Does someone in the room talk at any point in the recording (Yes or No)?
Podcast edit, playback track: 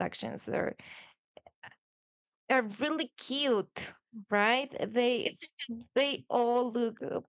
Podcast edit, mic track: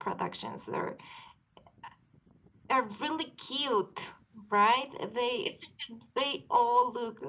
No